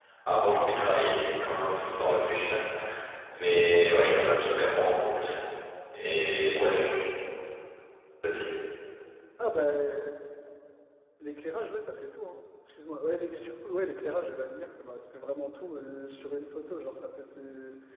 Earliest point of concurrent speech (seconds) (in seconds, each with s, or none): none